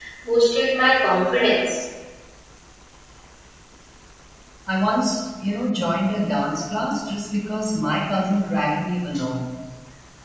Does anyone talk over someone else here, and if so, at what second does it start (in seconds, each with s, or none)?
none